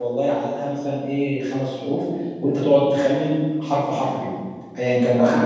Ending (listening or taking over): taking over